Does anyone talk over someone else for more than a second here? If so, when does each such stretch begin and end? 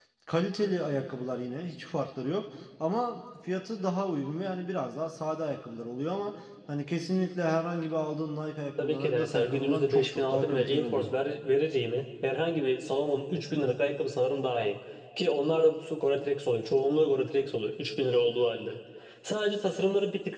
8.8-11.1

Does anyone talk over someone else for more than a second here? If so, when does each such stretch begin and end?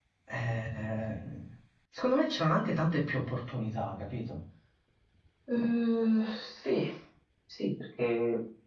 none

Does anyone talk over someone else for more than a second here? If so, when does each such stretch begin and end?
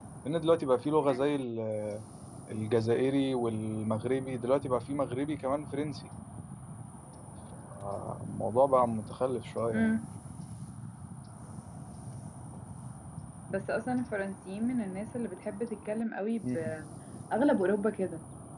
none

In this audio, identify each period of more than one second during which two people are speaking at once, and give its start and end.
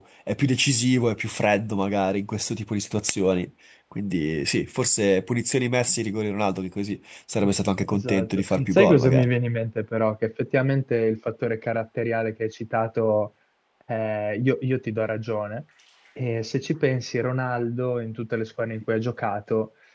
7.9-9.3

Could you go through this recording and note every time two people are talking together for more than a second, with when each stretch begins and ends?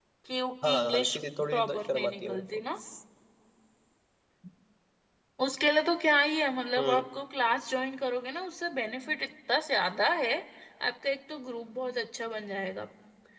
0.6-2.6

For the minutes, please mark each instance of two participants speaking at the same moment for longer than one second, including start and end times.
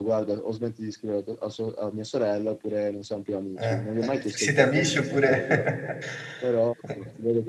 3.6-5.4

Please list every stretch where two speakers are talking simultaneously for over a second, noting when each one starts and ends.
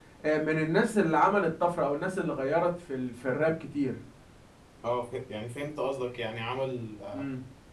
none

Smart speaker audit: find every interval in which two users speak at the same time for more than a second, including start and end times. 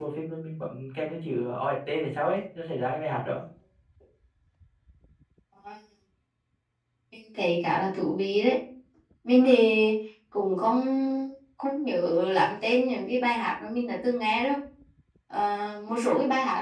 none

